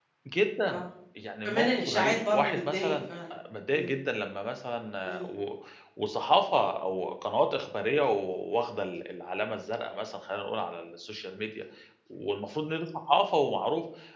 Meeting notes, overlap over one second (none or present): present